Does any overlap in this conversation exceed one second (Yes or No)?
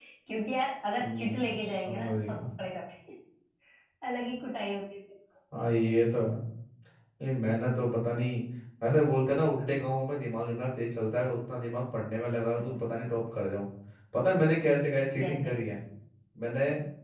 Yes